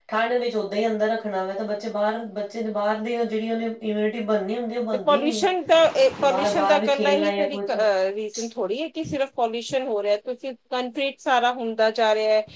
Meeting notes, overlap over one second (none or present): present